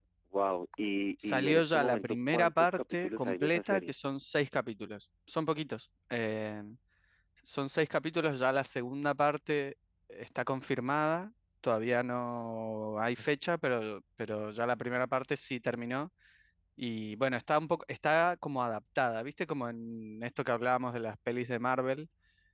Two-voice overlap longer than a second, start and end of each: 1.2-4.0

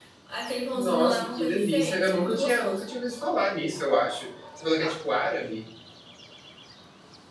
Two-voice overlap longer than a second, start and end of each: 0.7-2.9

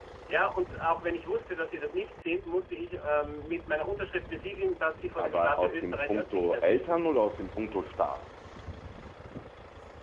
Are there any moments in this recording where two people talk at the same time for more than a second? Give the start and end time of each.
5.2-7.0

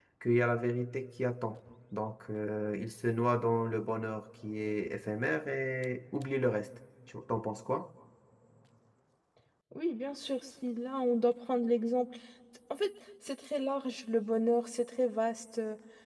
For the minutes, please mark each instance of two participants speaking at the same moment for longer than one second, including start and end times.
none

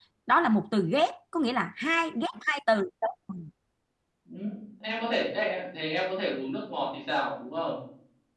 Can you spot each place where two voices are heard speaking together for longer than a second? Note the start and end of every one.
none

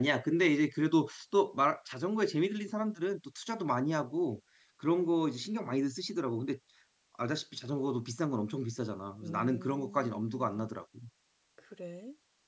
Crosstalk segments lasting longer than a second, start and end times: 9.2-10.7

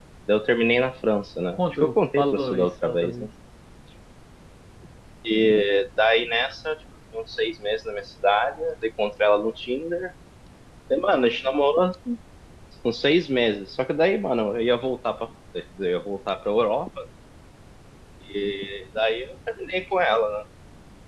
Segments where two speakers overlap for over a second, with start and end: 1.6-3.3

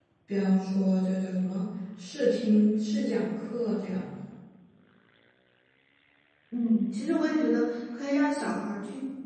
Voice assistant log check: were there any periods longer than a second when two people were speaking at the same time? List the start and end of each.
none

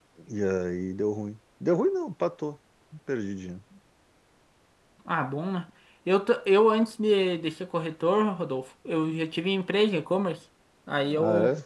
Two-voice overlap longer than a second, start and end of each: none

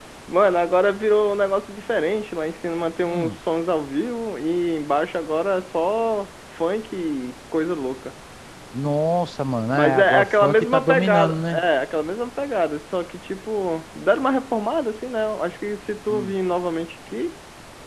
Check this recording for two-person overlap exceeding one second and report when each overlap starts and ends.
9.7-11.6

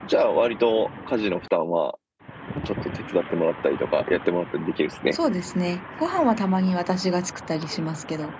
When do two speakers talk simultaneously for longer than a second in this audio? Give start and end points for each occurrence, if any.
none

